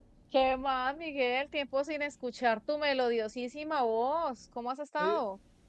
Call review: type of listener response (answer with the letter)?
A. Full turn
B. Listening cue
A